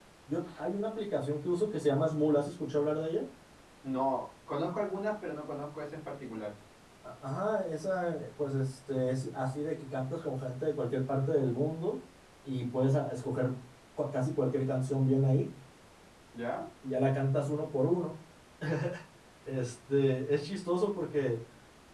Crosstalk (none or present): none